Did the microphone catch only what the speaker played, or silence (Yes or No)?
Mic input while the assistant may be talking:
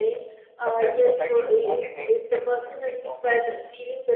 No